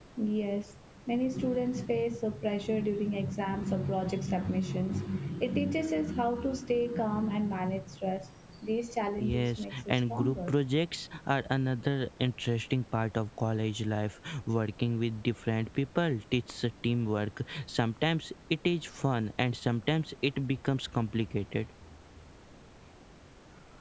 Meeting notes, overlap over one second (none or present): present